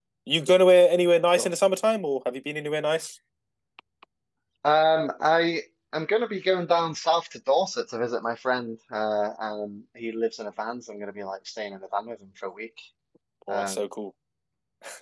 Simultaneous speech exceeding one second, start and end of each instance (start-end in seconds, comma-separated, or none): none